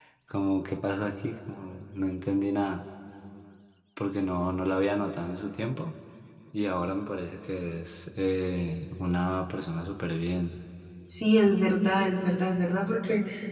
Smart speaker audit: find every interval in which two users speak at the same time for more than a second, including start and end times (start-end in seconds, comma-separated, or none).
none